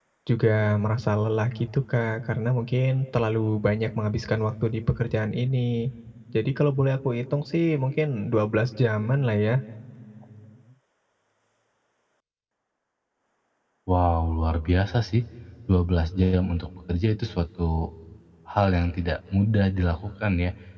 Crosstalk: none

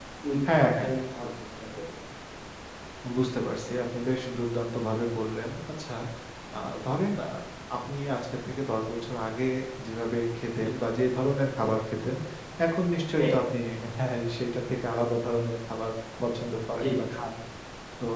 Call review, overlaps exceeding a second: none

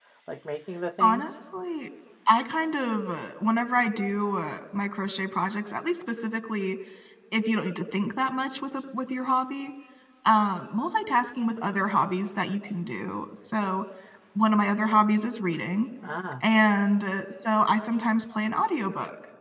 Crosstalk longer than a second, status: none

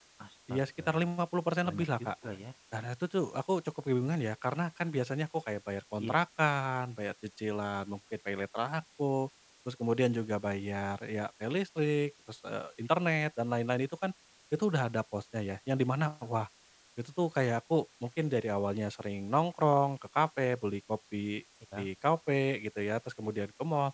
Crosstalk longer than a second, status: none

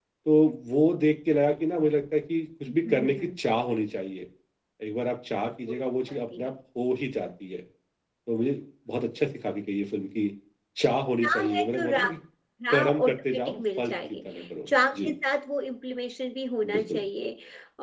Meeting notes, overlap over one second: present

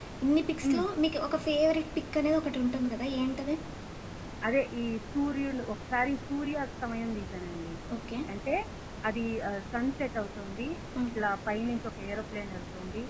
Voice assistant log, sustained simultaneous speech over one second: none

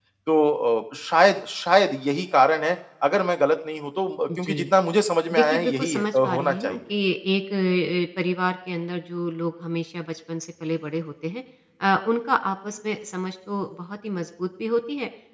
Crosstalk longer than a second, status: present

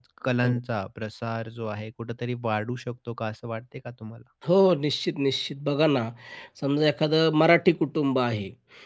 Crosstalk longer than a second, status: none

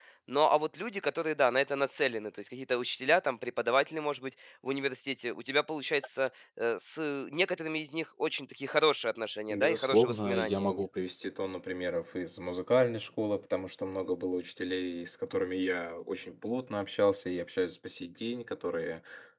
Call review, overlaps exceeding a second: present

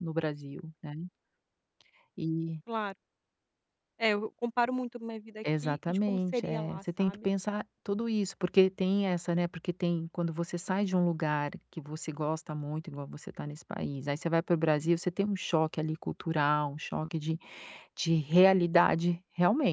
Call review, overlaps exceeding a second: present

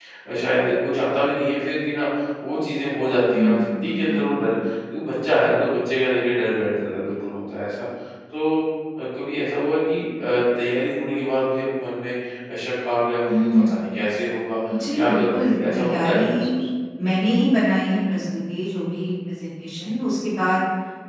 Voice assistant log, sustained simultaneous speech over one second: present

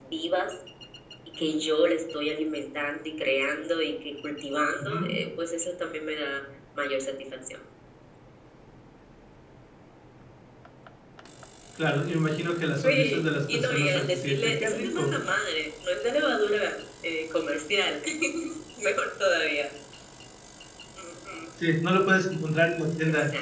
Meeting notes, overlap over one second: present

